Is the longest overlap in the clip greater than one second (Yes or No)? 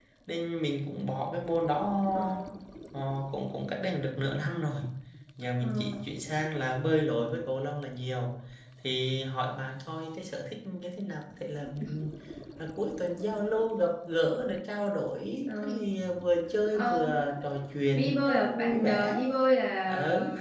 Yes